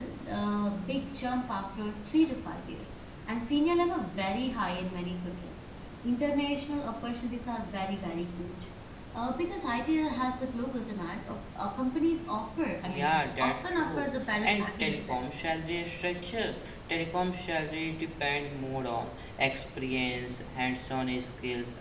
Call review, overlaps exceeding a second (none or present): present